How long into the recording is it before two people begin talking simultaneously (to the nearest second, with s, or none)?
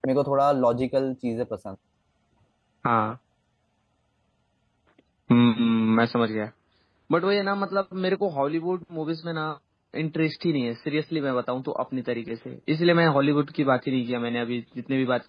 none